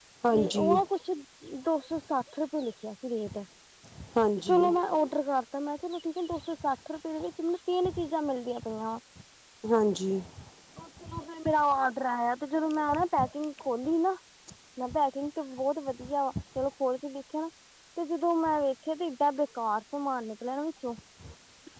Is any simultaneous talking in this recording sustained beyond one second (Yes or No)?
No